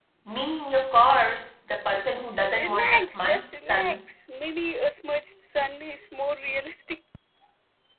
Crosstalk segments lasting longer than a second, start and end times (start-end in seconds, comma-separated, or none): 2.5-4.0